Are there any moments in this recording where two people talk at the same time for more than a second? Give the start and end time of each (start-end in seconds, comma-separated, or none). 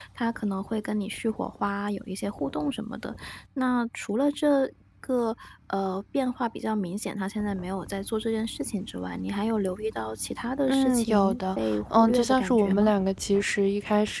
10.7-12.9